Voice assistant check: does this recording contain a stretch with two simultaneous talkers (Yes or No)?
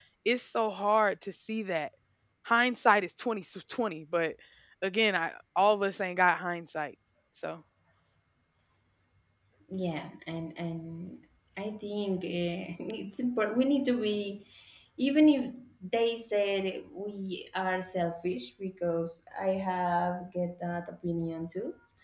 No